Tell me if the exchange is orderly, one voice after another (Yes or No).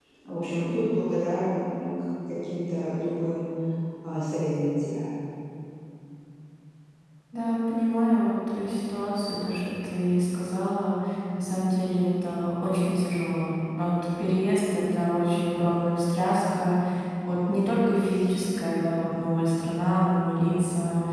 Yes